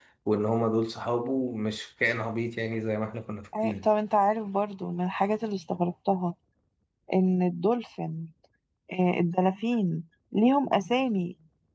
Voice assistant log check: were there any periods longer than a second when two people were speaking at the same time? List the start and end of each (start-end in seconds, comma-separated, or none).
none